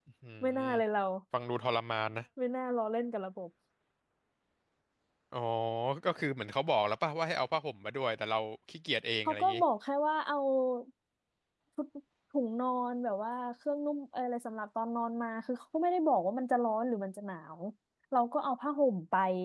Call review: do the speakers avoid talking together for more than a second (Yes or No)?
Yes